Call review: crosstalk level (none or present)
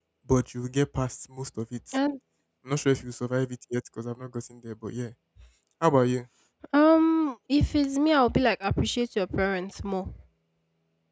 none